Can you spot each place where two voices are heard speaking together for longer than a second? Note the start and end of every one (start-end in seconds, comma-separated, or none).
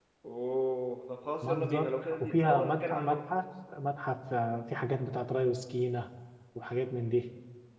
1.5-3.2